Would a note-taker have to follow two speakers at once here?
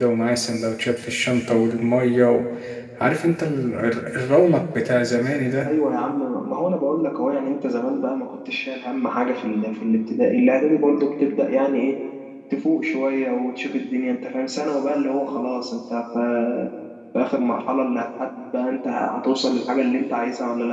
No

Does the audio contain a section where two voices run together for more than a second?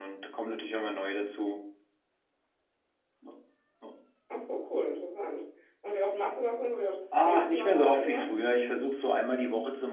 Yes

